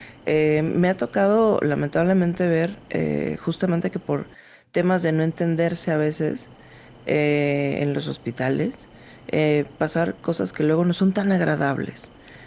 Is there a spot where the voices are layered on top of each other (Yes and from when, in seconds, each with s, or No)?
No